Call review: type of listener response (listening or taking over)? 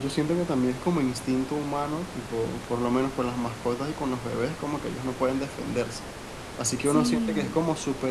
listening